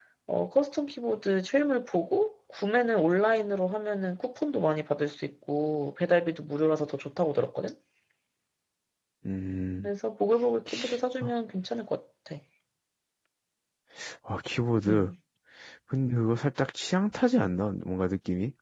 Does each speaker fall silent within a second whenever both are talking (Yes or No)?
Yes